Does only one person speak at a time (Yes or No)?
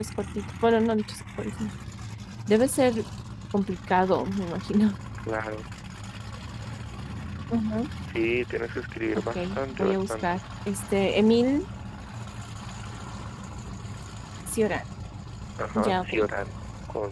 No